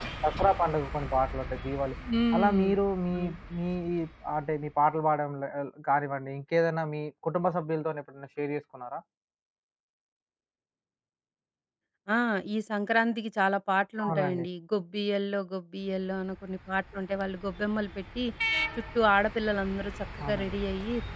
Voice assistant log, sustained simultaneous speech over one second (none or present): none